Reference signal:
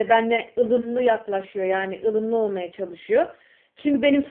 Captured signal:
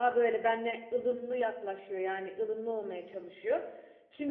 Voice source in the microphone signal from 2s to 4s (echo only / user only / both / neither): echo only